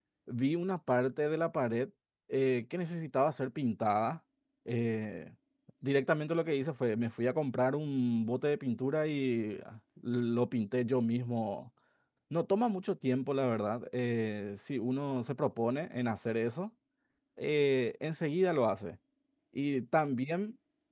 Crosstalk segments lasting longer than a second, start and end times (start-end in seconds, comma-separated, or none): none